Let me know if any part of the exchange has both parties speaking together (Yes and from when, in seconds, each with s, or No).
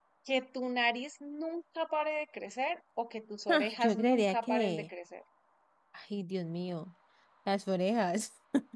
Yes, from 3.5 s